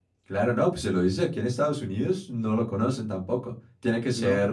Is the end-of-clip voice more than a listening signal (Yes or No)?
Yes